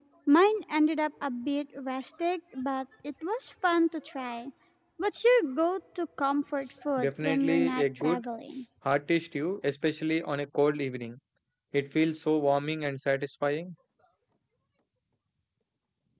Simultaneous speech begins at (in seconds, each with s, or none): 7.0 s